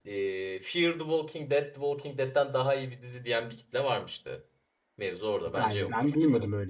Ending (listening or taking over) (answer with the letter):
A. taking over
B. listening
A